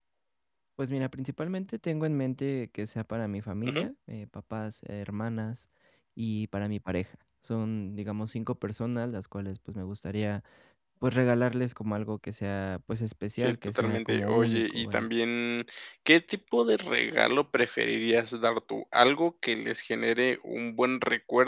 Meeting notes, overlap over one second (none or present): present